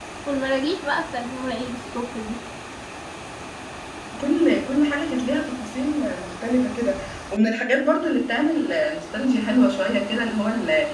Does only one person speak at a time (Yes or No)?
Yes